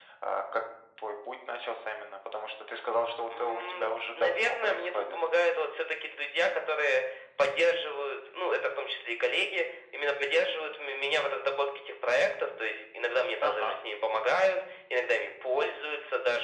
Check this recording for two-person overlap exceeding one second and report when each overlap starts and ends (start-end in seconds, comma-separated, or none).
3.3-5.2